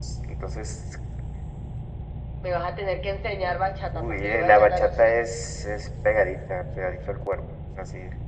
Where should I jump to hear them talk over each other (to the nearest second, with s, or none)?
4 s